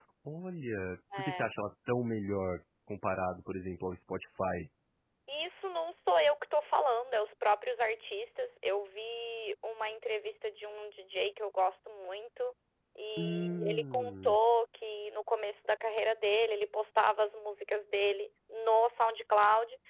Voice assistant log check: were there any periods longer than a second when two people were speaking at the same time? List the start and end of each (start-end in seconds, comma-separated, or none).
13.2-14.4